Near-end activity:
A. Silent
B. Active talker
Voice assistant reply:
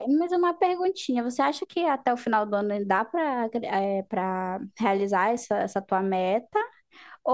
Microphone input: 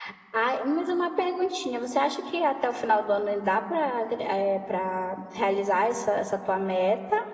A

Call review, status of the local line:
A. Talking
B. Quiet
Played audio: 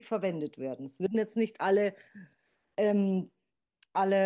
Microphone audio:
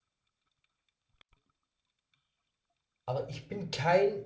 A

